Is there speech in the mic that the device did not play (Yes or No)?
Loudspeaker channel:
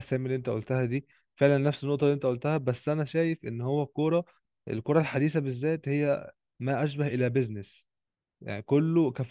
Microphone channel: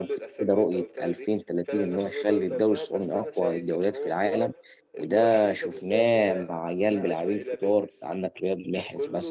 Yes